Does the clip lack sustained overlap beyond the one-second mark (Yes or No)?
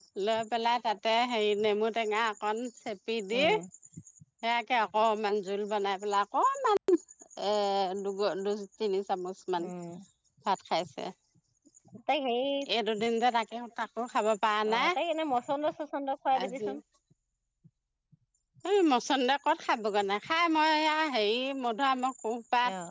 Yes